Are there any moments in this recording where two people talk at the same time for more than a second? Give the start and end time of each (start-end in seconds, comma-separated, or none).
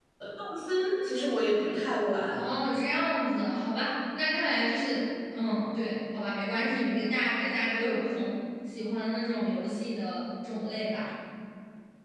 none